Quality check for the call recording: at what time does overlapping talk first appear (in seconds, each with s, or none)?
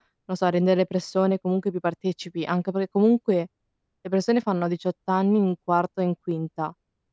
none